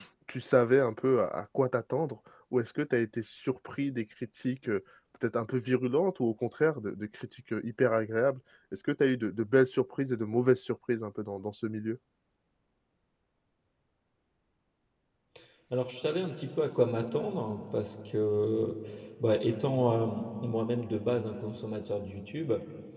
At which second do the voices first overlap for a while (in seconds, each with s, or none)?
none